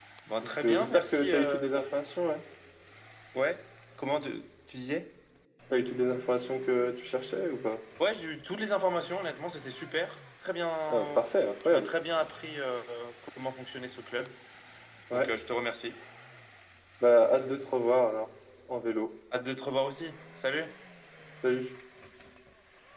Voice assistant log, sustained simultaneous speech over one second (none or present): present